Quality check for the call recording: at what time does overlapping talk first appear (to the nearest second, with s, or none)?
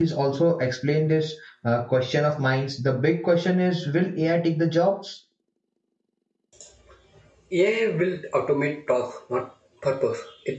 none